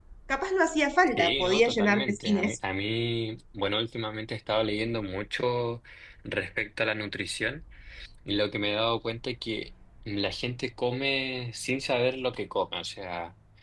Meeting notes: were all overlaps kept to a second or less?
No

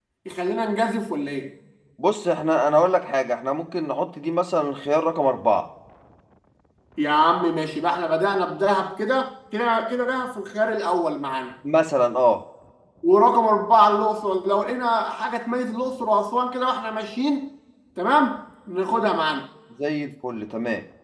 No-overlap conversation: Yes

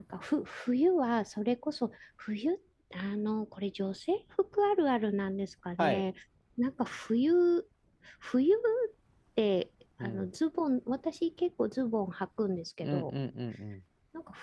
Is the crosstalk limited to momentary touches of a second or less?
Yes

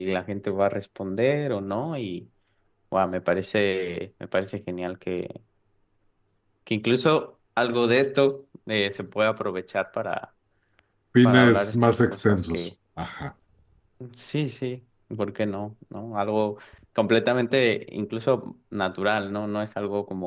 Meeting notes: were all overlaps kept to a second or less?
No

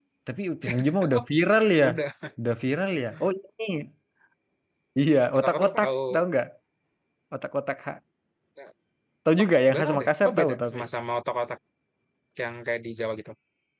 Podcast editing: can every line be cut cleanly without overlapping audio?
No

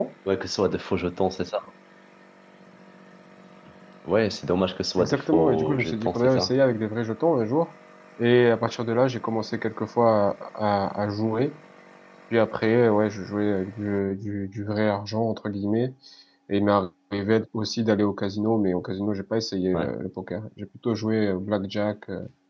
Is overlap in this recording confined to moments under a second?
No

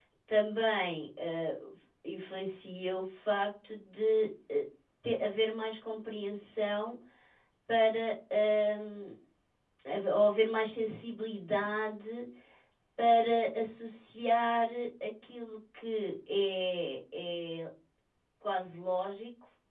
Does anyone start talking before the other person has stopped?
No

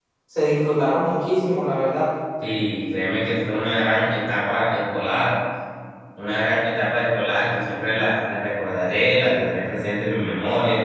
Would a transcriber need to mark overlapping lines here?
No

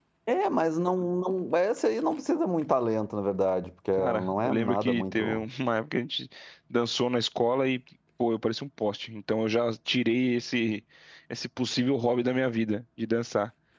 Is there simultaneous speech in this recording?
Yes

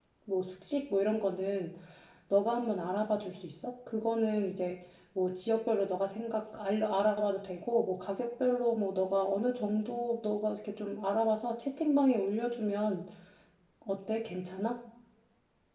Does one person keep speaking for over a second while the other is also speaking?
No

